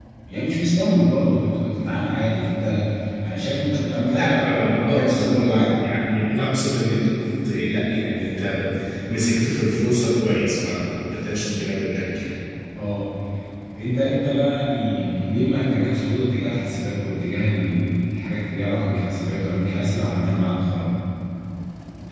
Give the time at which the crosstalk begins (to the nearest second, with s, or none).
4 s